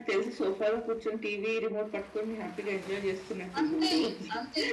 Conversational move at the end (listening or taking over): taking over